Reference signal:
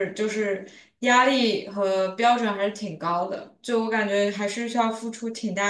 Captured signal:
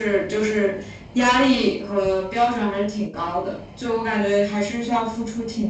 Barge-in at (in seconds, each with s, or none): none